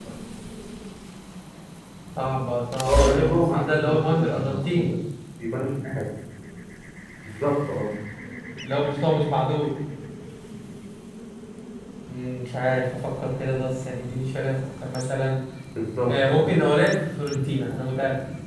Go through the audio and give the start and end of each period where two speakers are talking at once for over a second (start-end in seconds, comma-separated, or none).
2.9-4.9